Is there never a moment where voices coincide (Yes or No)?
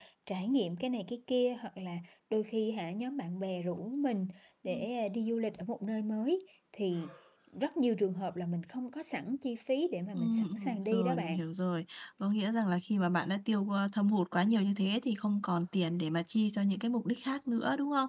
No